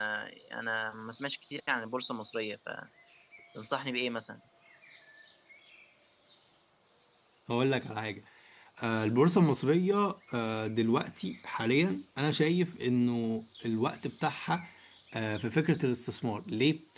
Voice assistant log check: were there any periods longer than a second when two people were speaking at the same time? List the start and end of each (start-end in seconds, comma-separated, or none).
none